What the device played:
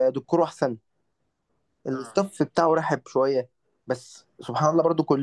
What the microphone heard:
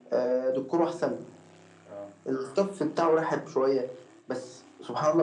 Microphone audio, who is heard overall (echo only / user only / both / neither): both